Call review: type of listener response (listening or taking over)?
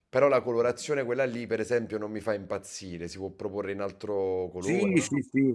taking over